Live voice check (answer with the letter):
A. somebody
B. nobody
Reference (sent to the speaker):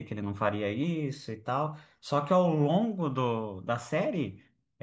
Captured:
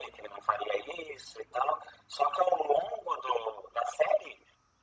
B